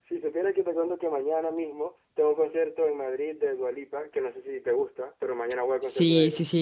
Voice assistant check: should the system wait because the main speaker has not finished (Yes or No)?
No